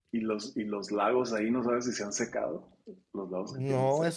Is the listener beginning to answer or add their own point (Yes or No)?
Yes